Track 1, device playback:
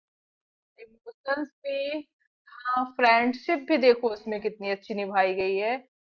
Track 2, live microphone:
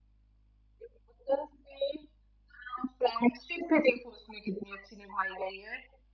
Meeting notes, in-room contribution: none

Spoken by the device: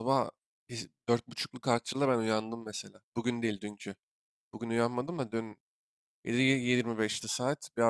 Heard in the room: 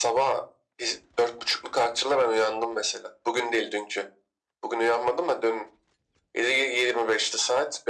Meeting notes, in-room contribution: none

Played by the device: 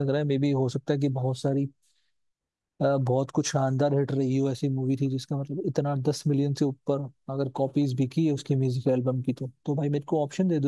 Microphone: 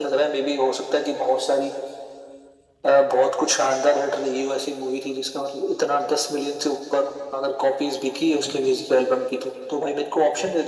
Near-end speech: none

